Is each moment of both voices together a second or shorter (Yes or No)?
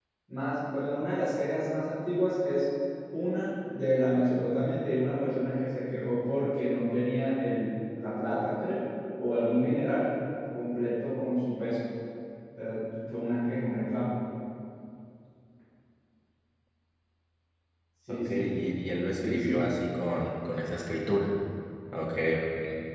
Yes